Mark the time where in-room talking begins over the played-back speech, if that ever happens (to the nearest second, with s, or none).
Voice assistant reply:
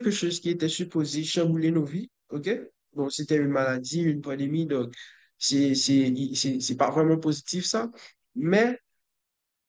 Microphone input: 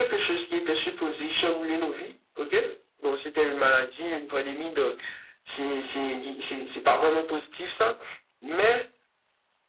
none